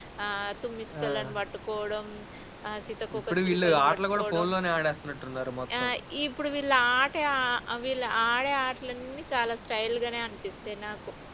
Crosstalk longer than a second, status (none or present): present